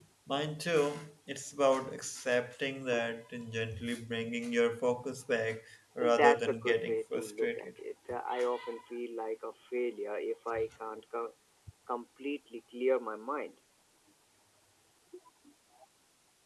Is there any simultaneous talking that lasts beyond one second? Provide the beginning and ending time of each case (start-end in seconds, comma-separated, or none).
6.0-7.7